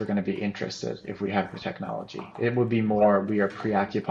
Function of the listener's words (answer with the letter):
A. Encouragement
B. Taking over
A